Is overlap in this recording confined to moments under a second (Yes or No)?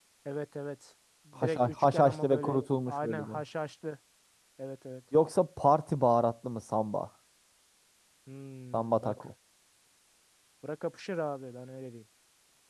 No